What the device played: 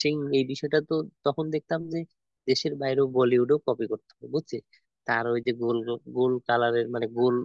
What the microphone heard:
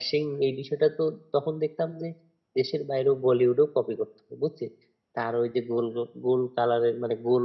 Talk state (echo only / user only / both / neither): echo only